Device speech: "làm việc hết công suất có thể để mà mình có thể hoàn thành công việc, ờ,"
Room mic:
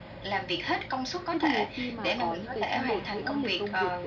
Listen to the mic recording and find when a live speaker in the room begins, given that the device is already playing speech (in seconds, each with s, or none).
1.3 s